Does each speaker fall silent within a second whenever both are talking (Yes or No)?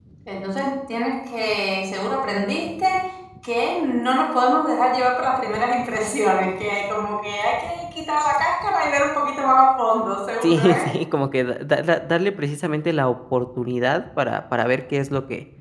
Yes